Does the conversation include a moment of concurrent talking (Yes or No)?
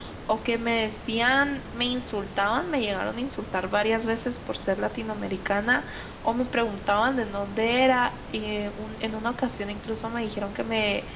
No